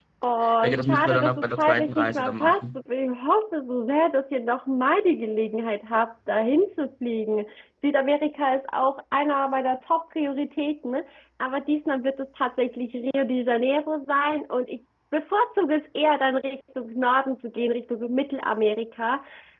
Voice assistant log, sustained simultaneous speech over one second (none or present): present